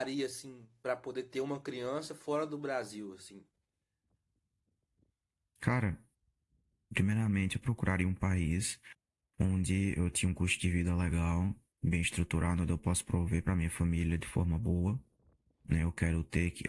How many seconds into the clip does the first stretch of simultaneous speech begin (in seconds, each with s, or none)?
none